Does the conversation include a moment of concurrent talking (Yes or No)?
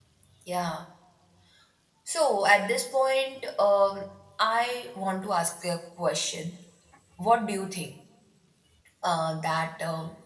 No